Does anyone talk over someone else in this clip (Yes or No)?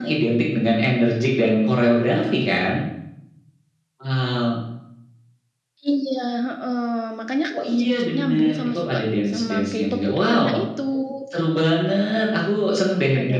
Yes